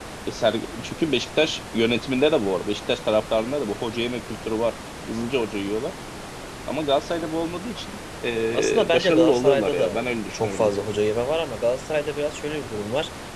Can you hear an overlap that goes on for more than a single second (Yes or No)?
Yes